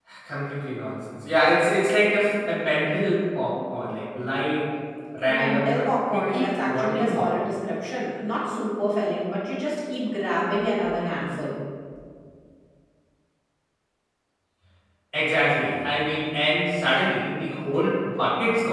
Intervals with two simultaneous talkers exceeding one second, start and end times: 5.3-7.3

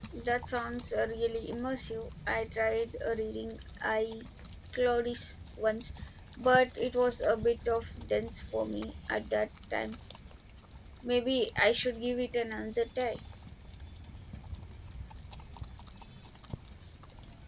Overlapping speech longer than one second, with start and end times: none

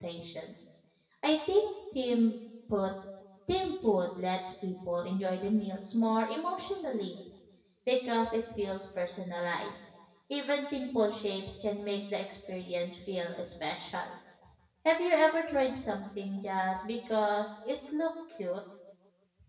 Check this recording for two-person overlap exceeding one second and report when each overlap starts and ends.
none

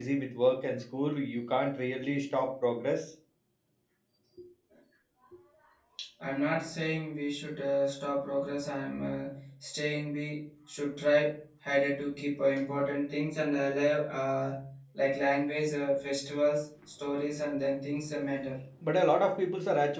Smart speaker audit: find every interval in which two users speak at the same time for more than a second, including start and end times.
none

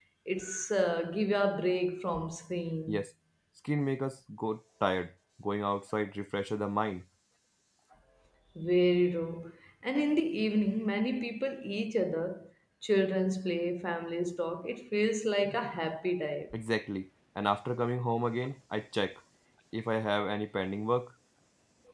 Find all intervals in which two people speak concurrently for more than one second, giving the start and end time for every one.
none

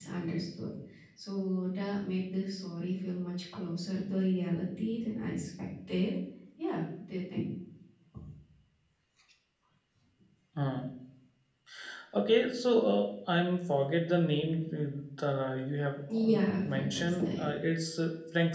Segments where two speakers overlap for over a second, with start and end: 16.1-17.6

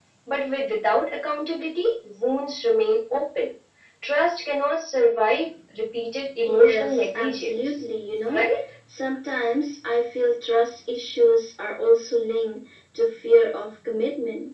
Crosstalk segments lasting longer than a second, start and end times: 6.4-7.7

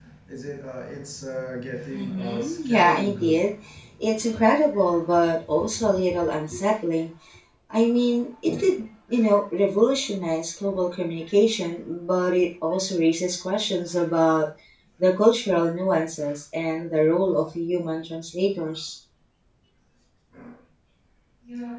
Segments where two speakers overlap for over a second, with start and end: 1.9-3.4

